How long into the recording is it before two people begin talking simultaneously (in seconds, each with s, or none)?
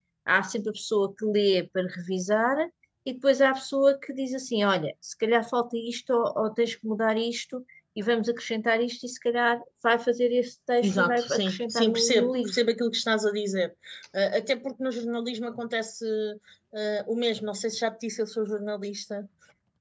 10.8 s